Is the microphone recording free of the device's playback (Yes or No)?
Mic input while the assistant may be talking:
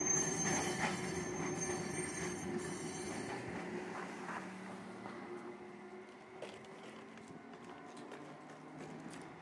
Yes